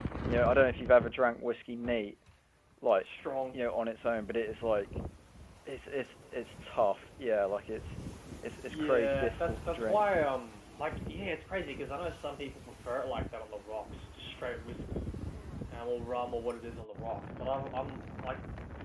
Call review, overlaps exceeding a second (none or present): present